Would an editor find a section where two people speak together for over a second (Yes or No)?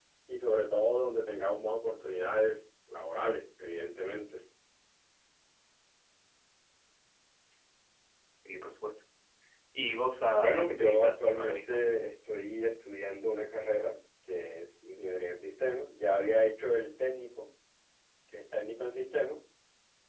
Yes